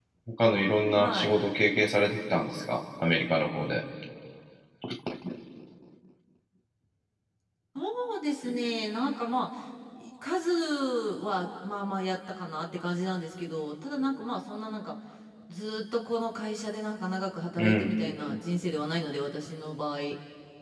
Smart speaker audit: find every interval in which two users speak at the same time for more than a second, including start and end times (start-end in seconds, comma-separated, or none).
none